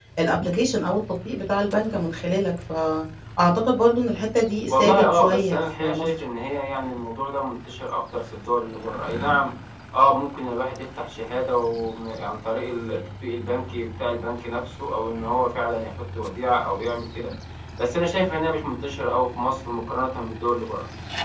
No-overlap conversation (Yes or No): No